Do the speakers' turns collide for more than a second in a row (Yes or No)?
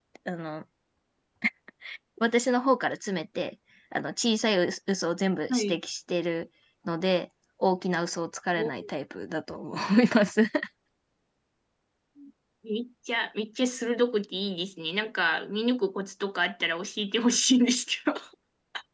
No